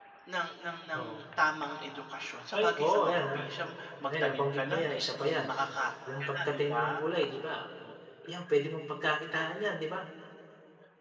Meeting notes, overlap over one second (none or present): present